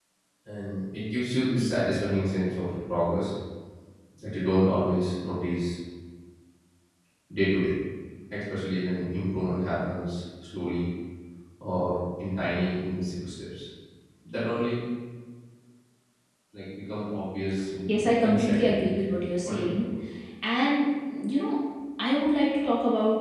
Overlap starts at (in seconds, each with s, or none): 17.9 s